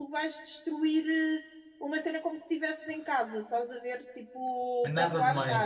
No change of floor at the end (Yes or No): No